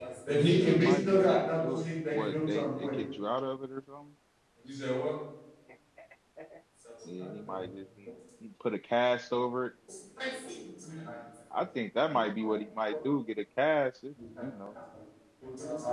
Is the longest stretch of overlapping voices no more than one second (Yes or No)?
No